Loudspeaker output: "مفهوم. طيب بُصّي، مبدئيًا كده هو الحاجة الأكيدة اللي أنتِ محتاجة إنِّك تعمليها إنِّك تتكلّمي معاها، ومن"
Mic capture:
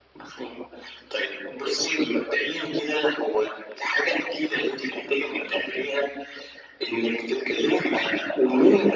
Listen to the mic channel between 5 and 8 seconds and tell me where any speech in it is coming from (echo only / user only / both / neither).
echo only